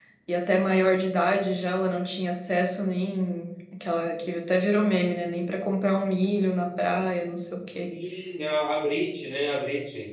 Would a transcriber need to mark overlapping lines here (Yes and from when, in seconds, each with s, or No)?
No